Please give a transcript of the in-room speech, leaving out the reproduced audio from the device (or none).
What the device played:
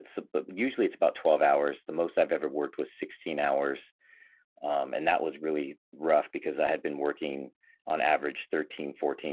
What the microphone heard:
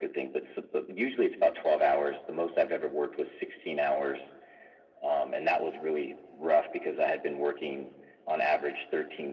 none